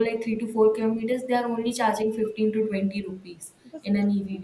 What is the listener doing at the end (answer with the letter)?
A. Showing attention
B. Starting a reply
A